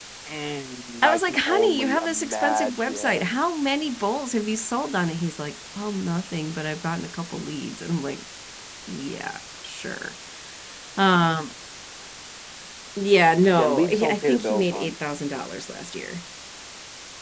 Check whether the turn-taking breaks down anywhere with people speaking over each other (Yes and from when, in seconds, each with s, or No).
Yes, from 1.0 s